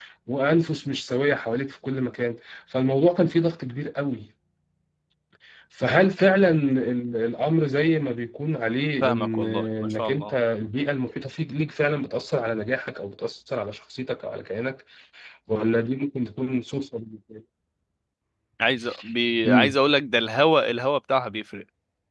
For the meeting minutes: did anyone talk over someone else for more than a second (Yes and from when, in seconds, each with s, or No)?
Yes, from 9.0 s